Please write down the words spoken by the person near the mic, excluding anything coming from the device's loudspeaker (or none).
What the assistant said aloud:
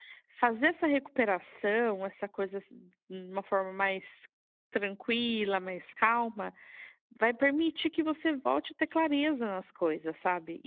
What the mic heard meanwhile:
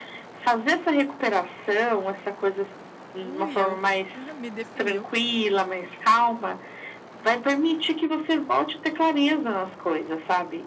Ui, eu. Ah, Me definiu.